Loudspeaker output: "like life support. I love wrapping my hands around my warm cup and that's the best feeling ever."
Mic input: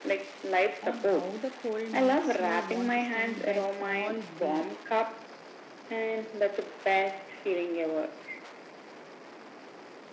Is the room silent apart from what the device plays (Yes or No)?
No